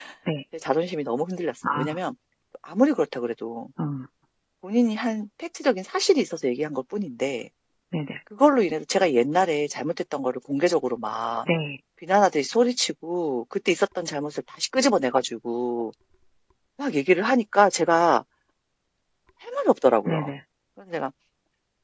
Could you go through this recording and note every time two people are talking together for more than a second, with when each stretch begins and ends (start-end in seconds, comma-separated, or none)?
none